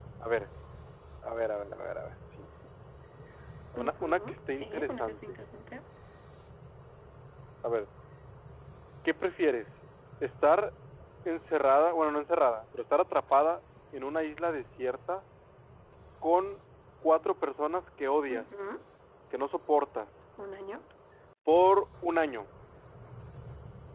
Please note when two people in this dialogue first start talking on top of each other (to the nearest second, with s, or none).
4 s